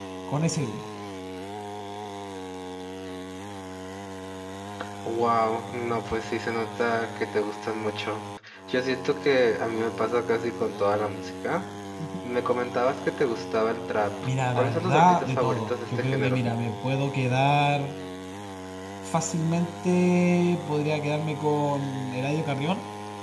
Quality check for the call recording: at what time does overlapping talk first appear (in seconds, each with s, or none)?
14.6 s